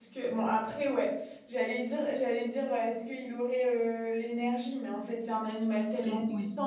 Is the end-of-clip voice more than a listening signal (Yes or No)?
No